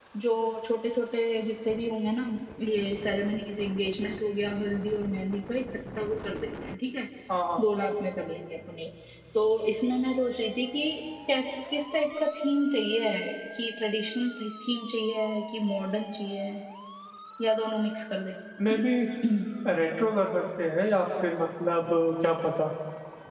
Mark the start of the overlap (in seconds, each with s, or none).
none